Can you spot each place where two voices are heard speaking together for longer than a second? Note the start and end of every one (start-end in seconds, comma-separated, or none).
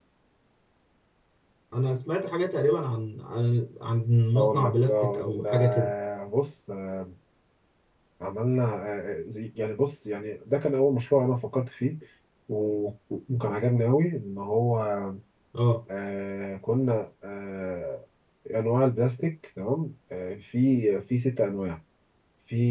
4.4-5.9